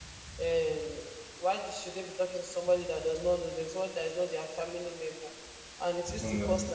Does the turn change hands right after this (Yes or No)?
No